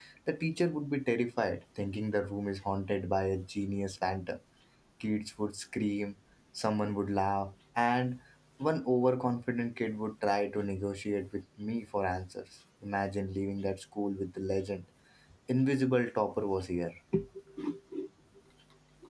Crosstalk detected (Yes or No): No